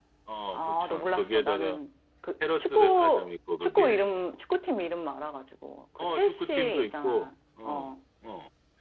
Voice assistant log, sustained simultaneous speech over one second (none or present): present